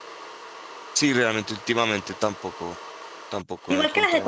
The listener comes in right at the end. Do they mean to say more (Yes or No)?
Yes